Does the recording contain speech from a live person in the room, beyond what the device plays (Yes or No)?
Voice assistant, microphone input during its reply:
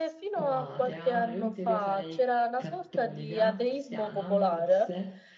Yes